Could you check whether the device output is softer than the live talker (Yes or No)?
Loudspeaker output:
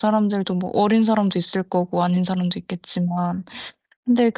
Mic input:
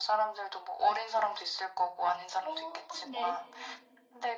No